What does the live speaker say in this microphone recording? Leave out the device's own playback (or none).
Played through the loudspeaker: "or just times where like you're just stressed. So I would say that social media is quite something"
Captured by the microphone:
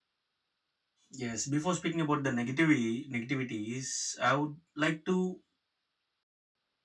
Yes, before speaking about the negativity negativities, I would like to